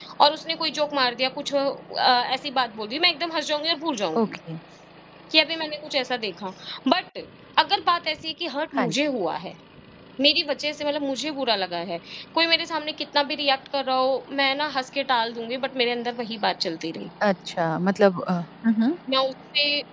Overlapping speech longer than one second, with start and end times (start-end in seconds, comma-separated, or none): none